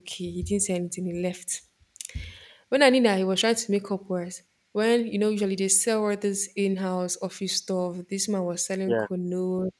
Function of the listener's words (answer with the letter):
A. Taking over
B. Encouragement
B